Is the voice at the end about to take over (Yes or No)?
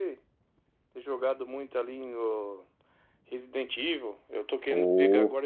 No